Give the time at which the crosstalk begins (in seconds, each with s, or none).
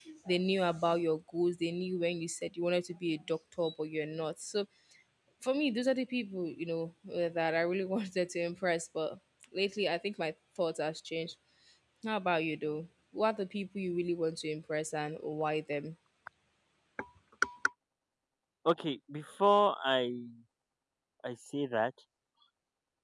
none